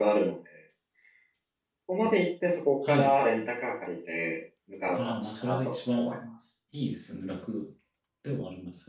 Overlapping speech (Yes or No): Yes